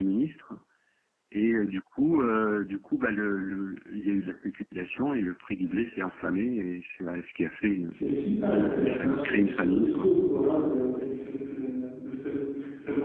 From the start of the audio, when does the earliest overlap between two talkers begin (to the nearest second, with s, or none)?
9 s